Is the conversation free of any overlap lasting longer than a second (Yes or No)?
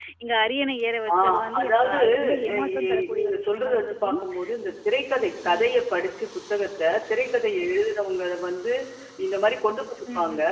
No